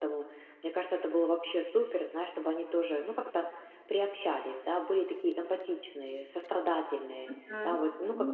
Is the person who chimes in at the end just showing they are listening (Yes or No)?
No